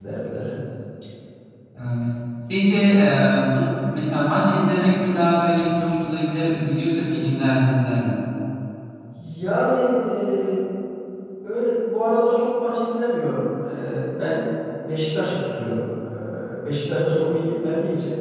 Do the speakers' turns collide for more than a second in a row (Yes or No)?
No